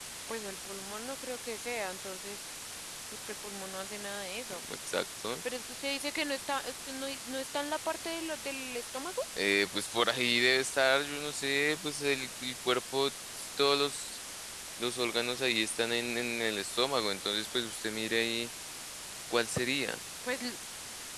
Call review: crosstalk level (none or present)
none